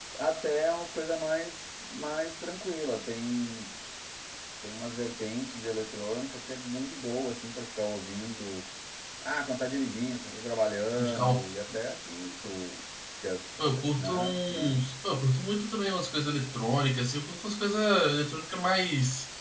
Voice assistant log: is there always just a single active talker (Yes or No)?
No